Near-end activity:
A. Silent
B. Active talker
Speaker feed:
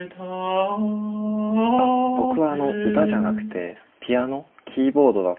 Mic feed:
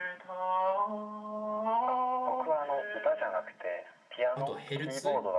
B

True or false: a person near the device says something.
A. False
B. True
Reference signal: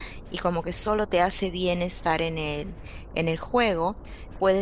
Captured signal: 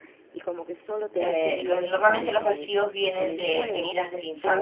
B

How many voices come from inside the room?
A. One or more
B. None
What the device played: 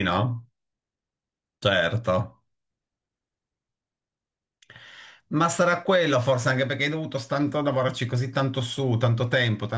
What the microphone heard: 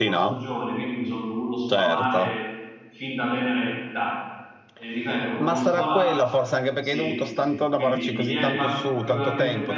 A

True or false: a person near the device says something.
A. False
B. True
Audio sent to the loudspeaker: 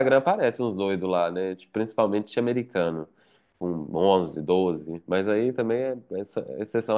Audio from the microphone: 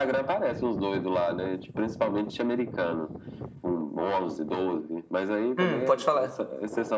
B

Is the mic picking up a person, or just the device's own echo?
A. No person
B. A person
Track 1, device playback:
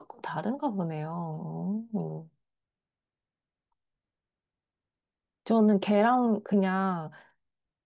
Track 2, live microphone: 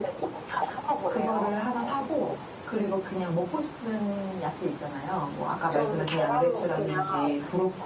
B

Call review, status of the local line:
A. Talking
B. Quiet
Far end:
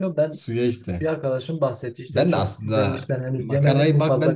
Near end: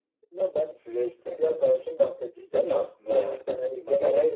B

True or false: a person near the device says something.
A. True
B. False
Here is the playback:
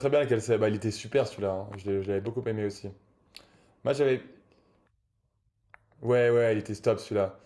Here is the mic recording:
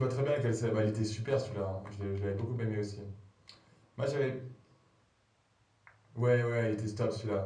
B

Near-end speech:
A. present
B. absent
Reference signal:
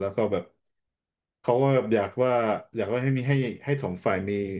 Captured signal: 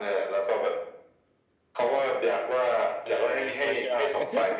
A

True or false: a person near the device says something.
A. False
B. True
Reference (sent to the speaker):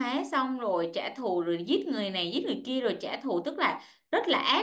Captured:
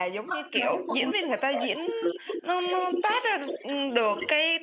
B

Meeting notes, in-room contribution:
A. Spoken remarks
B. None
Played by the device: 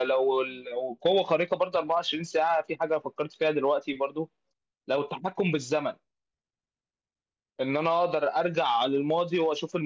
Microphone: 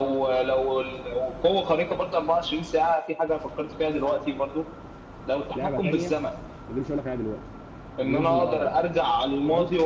A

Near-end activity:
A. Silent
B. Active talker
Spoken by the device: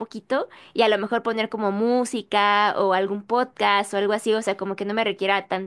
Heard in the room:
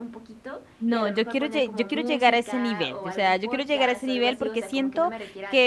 B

